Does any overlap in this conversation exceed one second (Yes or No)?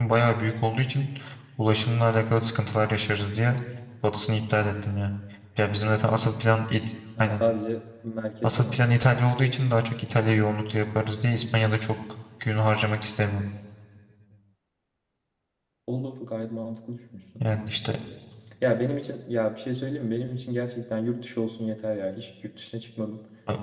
No